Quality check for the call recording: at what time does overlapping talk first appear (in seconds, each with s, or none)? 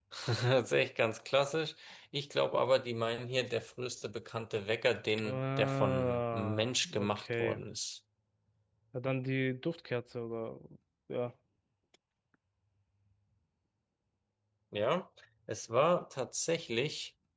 5.2 s